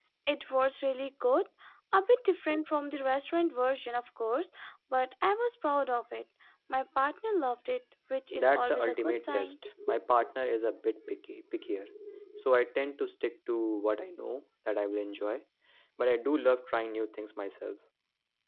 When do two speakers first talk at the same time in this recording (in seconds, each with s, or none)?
8.3 s